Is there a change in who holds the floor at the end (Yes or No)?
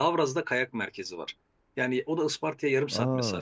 No